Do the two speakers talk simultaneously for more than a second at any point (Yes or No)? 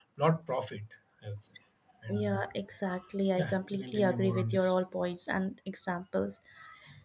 Yes